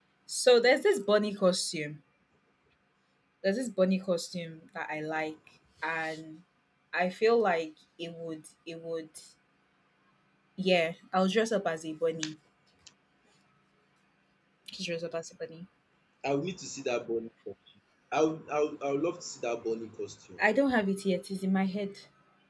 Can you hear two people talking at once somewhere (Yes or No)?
No